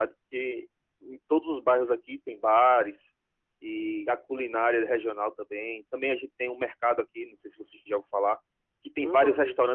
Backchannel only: Yes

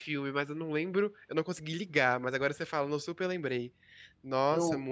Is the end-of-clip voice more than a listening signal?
Yes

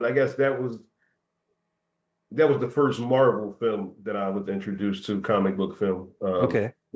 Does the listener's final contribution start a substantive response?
No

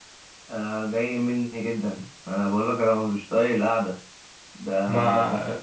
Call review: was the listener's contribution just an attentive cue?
Yes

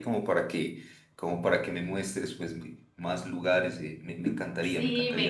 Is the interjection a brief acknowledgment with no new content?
No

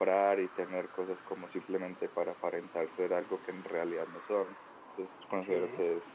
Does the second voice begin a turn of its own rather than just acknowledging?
No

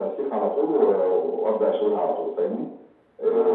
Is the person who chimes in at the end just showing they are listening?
No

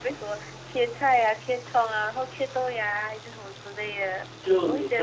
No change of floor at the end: No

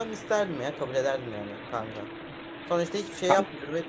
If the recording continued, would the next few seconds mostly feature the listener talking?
No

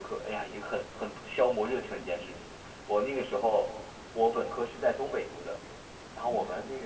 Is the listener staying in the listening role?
Yes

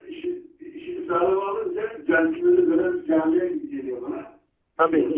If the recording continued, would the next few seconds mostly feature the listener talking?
Yes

